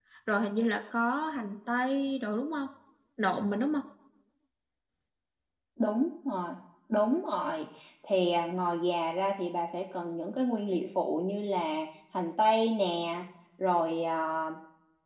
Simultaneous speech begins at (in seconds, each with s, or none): none